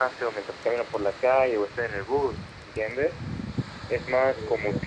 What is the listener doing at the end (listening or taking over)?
listening